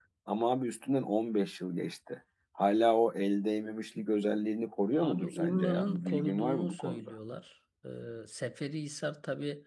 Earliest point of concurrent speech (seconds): 5.0 s

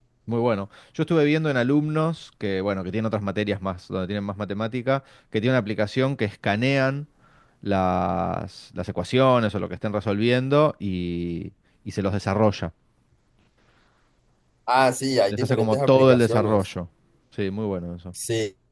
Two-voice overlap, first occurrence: 15.3 s

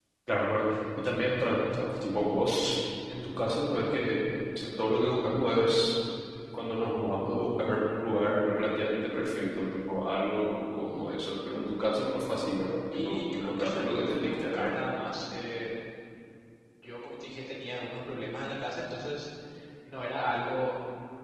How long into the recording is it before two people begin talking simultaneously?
12.9 s

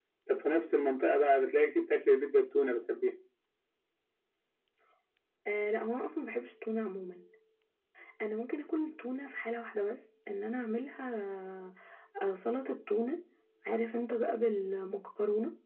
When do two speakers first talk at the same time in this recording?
none

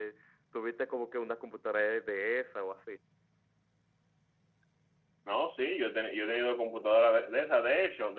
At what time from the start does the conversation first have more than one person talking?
none

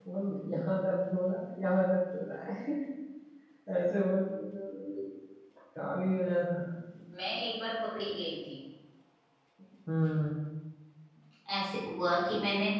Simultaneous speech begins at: none

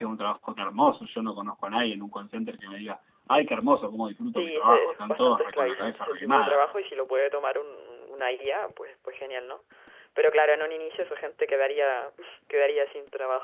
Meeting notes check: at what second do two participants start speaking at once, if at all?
4.3 s

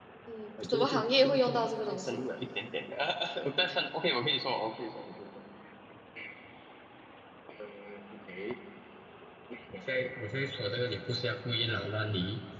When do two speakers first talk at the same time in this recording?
0.6 s

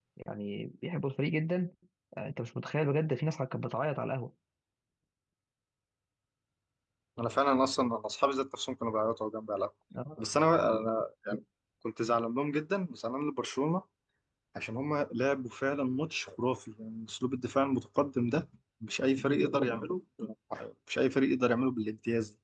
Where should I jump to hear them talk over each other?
none

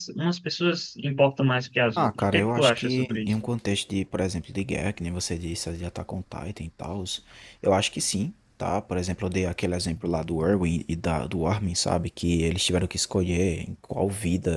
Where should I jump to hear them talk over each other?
2.0 s

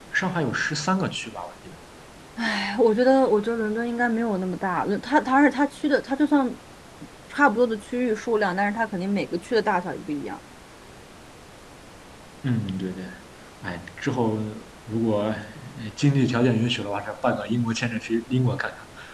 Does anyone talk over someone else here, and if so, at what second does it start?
none

